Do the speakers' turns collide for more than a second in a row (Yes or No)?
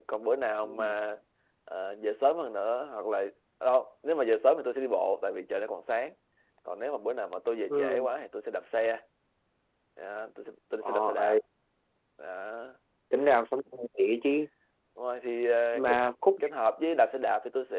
No